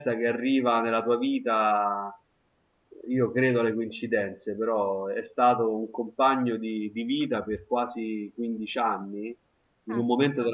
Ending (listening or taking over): listening